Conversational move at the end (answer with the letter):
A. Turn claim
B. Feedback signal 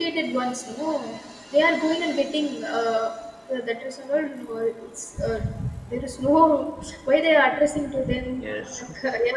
B